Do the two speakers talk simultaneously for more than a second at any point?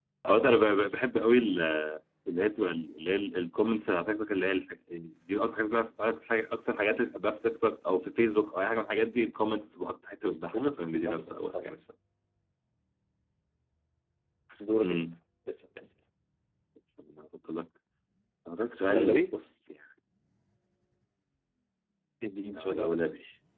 Yes, from 10.2 s

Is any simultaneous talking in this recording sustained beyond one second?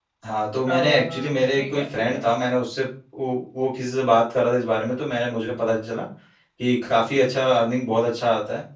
Yes, from 0.7 s

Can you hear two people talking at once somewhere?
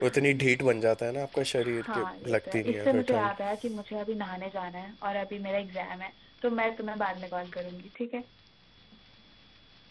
Yes, from 1.6 s

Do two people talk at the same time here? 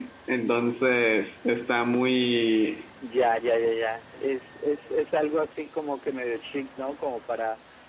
No

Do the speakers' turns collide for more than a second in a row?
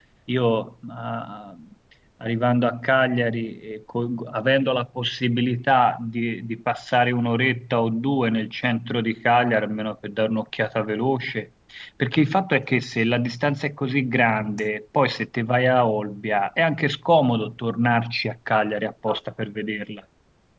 No

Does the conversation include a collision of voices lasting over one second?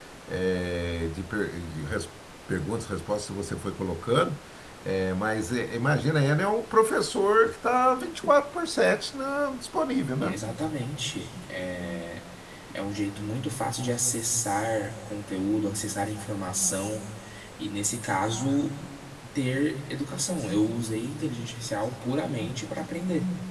No

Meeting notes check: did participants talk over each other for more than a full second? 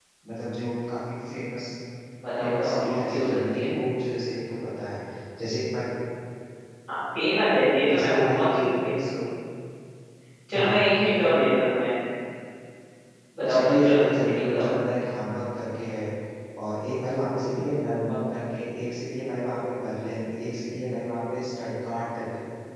Yes, from 2.4 s

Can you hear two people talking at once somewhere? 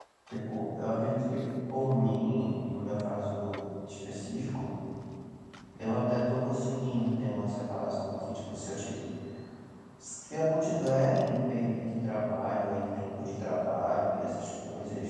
No

